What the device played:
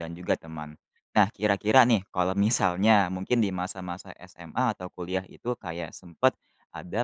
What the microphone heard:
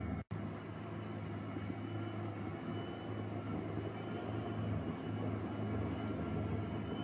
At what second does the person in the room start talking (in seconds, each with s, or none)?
none